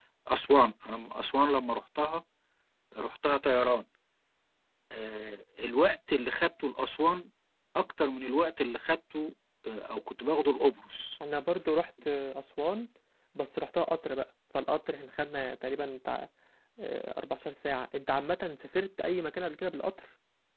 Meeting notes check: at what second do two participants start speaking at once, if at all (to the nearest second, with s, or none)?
none